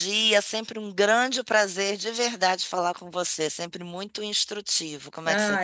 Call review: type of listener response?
taking over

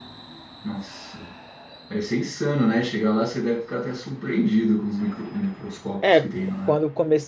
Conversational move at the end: taking over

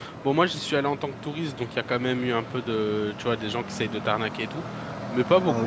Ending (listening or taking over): taking over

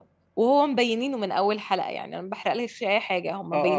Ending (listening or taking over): taking over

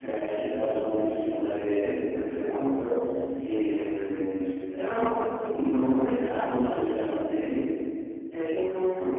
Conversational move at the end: listening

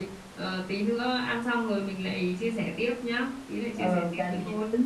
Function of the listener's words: taking over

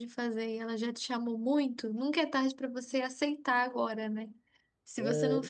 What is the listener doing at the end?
listening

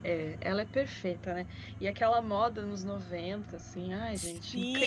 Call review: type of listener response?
taking over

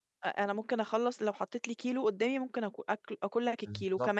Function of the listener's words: listening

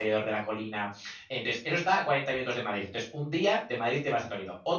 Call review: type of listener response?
listening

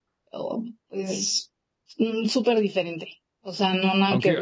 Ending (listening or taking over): taking over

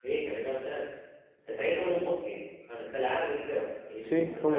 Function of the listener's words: taking over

